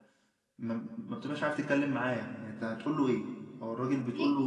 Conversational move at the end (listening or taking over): listening